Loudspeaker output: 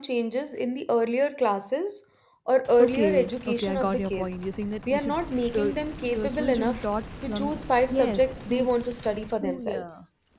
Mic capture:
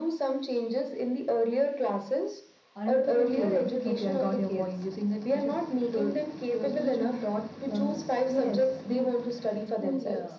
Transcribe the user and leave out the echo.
Our interpretation was the teacher's interpretation.

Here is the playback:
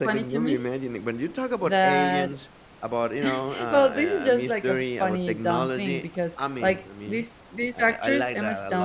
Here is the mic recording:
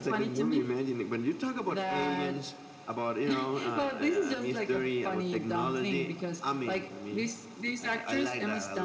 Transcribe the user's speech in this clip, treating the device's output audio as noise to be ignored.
none

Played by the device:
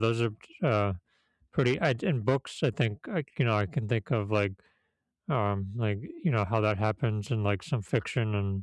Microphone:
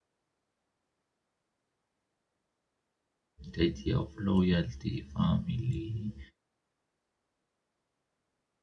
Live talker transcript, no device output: the idea of loyalty, family,

